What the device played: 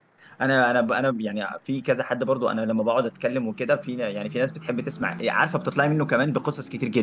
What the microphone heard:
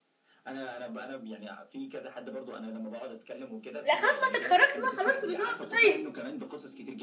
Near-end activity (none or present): present